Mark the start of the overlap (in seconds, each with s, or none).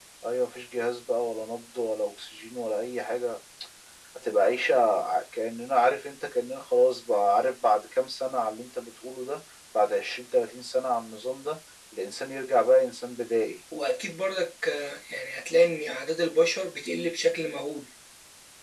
none